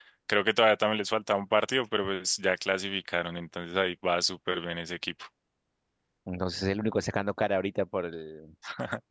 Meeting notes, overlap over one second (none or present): none